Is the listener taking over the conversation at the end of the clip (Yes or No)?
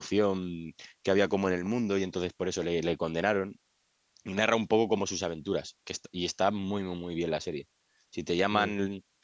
No